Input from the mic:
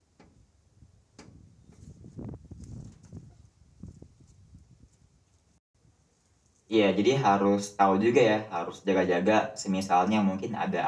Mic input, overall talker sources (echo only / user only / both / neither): user only